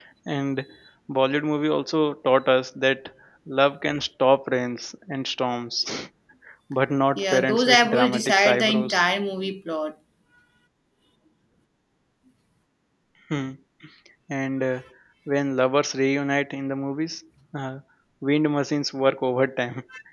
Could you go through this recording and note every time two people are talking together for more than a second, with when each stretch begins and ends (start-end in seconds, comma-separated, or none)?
7.2-9.0